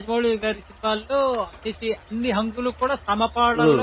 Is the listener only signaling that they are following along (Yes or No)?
No